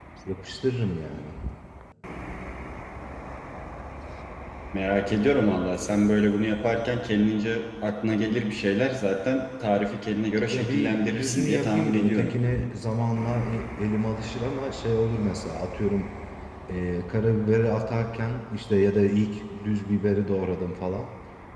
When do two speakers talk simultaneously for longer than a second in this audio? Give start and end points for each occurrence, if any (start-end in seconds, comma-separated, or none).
10.5-12.3